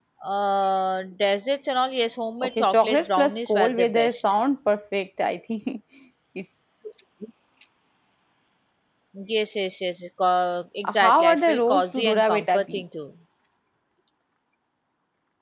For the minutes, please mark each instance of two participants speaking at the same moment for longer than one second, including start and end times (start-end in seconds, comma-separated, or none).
2.6-4.3, 10.9-12.8